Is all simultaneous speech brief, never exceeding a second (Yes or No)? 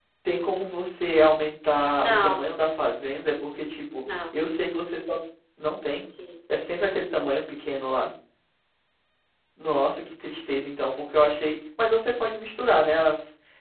Yes